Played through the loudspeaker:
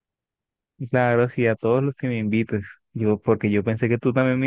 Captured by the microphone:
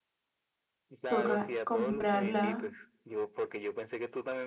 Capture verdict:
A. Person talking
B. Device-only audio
A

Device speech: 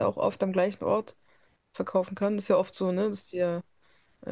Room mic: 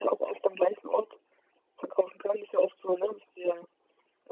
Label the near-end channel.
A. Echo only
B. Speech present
A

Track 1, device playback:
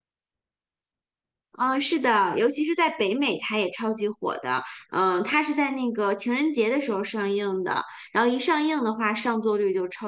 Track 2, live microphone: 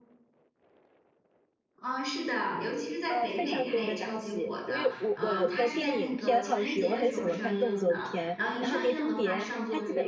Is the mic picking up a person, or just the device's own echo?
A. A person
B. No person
A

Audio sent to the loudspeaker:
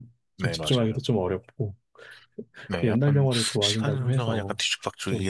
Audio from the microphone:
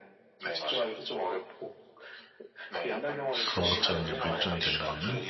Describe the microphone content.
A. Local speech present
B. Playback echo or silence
A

